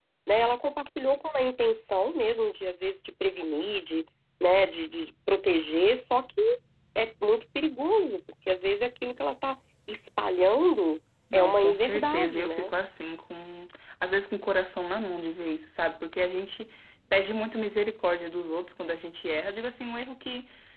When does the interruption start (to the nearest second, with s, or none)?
11 s